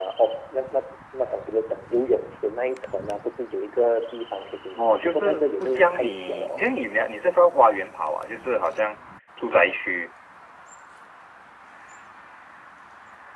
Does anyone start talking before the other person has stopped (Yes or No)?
Yes